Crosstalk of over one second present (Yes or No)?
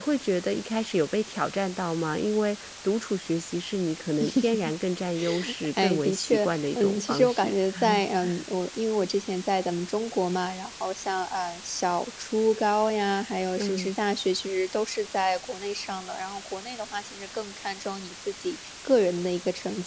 Yes